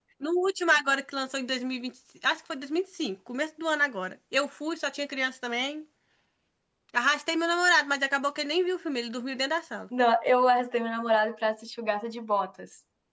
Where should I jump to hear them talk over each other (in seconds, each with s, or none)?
none